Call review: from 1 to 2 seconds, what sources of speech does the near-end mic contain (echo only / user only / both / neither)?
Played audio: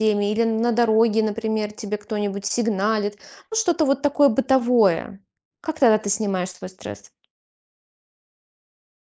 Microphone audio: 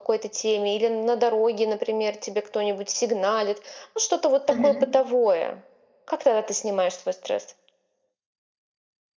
echo only